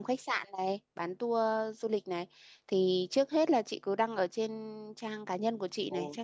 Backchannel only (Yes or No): Yes